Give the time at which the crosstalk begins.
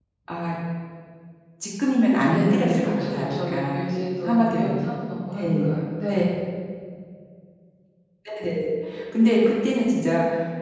2 s

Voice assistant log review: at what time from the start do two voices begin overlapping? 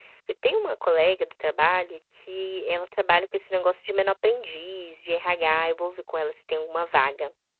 none

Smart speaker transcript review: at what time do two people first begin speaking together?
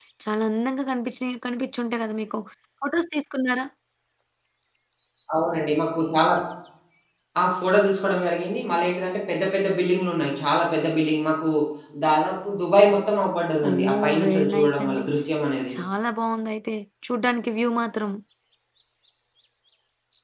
14 s

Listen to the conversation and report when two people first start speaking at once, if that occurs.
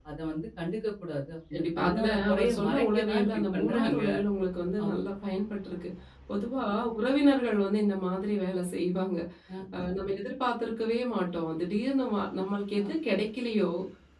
2 s

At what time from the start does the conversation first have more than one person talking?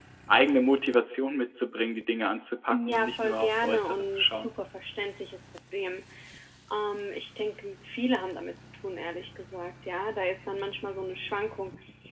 3 s

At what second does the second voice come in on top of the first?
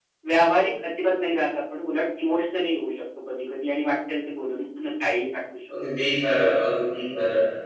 none

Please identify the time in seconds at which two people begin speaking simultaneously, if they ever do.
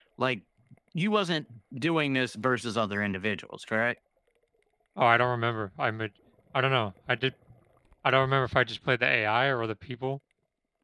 none

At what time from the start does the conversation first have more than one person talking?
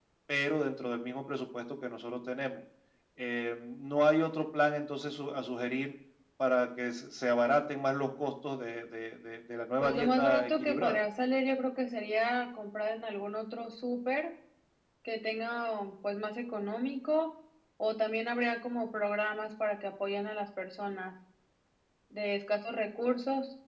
10 s

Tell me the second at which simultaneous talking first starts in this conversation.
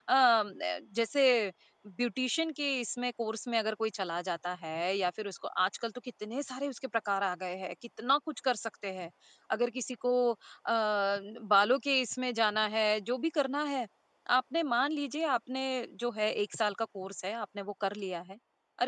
none

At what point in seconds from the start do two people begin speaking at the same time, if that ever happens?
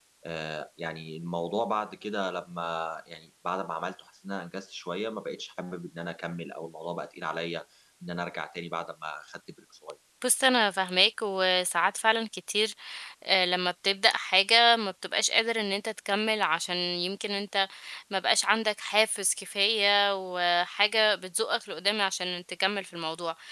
none

